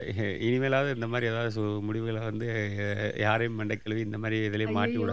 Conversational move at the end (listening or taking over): taking over